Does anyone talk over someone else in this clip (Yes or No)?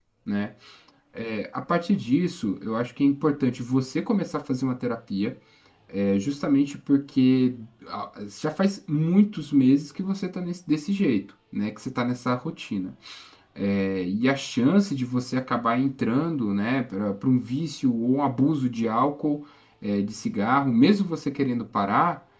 No